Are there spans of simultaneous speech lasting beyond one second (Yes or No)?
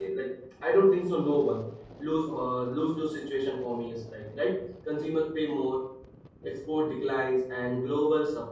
No